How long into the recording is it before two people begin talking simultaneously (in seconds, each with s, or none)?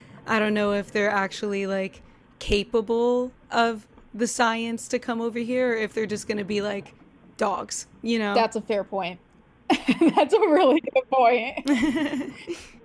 none